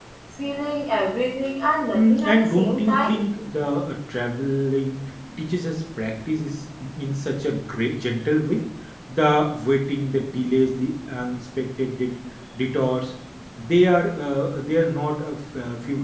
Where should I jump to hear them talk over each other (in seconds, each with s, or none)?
1.9 s